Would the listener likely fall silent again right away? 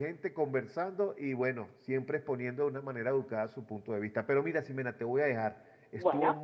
Yes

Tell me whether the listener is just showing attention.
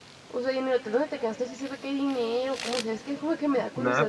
No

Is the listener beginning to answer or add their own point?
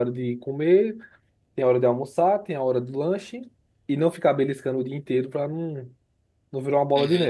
Yes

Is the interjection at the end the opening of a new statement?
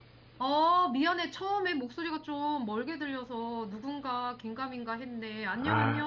Yes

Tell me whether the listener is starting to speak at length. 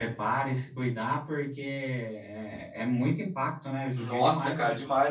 Yes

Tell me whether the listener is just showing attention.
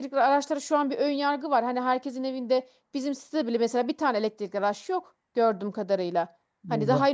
Yes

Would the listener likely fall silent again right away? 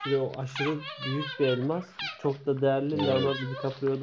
Yes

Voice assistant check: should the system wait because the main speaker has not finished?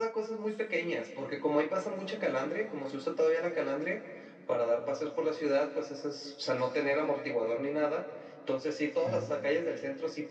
Yes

